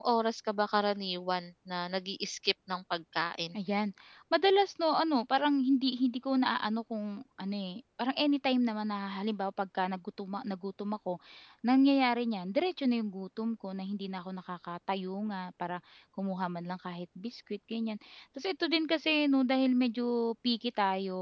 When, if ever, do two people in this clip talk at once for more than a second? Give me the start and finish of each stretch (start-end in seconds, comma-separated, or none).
none